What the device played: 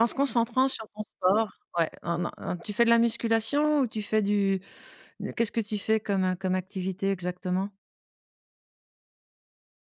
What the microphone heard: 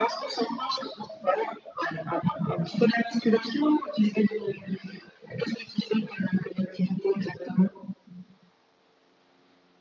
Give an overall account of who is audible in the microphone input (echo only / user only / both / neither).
echo only